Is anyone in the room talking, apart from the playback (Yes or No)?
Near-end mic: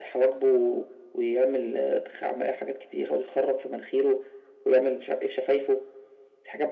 No